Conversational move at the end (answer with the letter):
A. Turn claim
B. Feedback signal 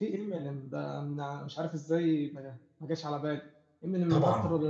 B